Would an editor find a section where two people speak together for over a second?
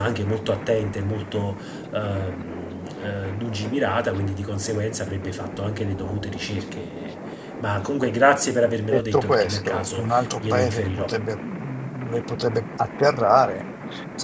Yes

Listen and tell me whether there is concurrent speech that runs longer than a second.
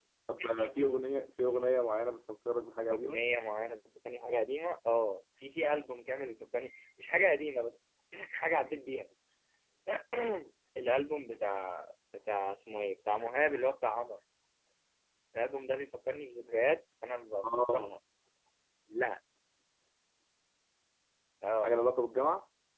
No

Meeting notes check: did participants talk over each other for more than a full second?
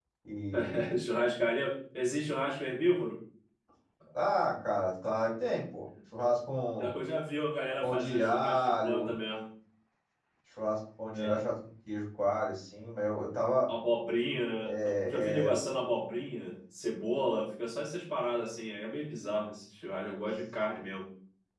Yes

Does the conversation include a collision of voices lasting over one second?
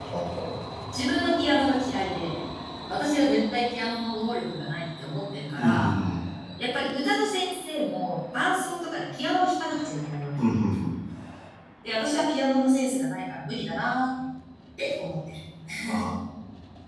No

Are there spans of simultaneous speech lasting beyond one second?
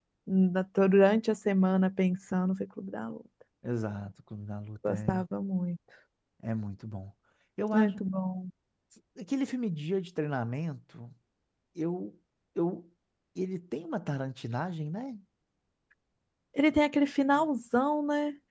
No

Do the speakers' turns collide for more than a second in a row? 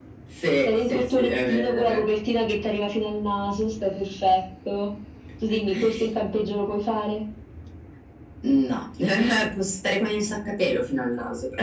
Yes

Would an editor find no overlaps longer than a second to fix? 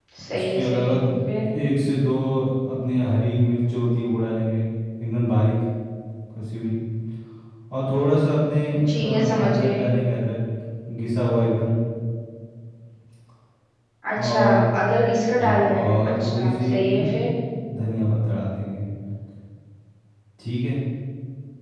No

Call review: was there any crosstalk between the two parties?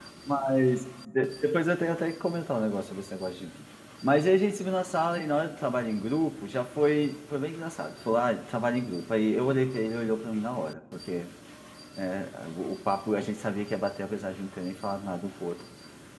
No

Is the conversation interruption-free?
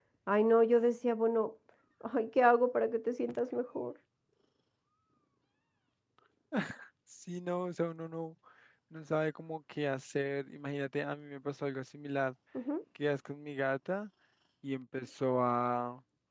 Yes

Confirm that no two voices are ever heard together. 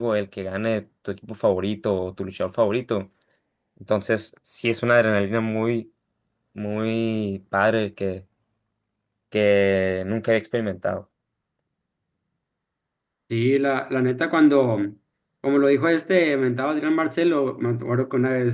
Yes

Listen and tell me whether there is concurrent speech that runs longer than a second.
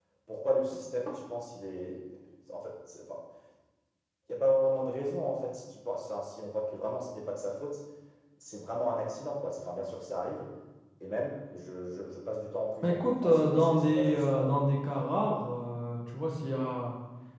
Yes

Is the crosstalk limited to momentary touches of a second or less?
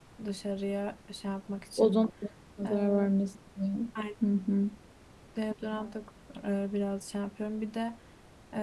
Yes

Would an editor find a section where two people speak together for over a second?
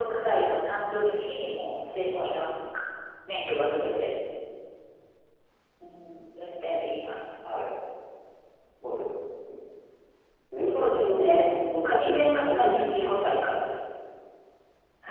Yes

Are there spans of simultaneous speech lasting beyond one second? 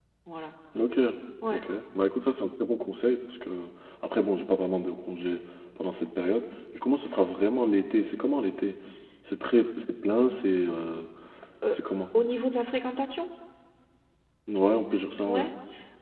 No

